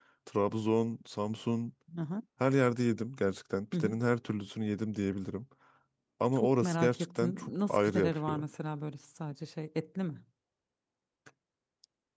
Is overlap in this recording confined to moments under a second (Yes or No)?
No